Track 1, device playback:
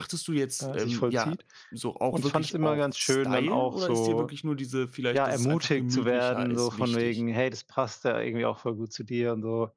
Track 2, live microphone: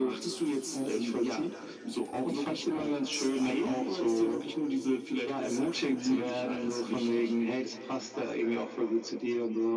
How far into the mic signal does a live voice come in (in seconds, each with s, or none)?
none